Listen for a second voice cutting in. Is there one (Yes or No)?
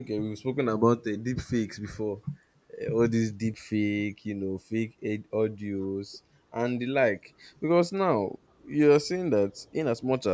No